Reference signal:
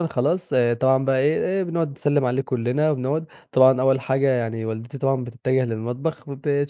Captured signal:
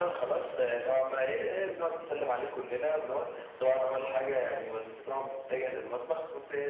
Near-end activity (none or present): none